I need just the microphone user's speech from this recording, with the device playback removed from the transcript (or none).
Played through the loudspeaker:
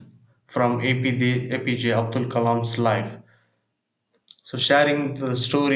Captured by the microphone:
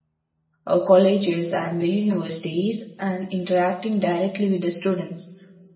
uh, colleges, and the universities and interacting directly with the students.